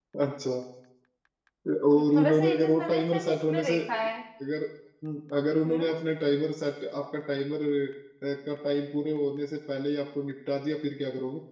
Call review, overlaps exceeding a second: present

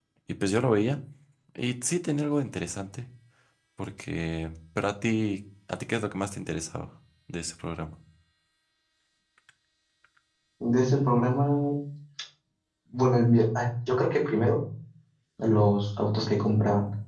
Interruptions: none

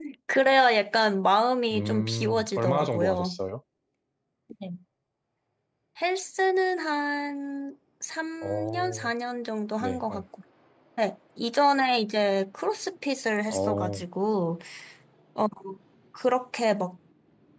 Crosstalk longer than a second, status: present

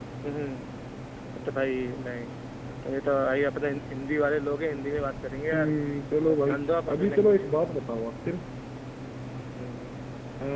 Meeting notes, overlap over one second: present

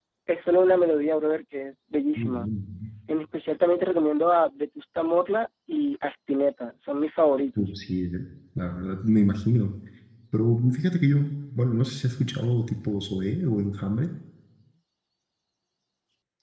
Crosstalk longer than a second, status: none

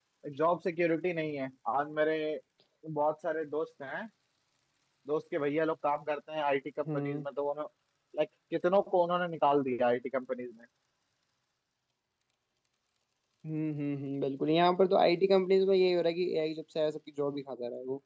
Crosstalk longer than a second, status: none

